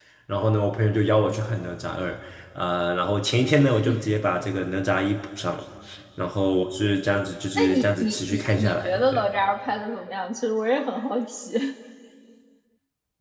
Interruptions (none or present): present